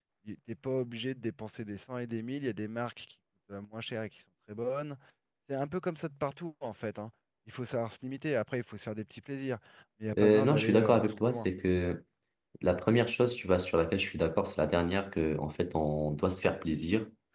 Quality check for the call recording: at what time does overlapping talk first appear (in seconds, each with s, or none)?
10.2 s